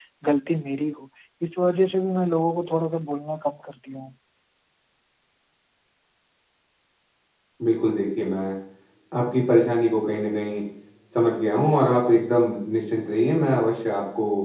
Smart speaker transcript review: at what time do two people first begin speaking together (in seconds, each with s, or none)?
none